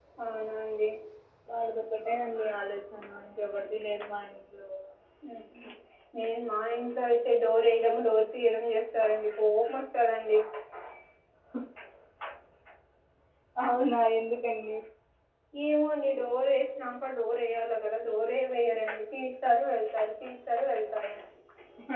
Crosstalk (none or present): none